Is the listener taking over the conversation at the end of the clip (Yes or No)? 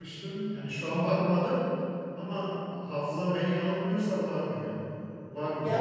Yes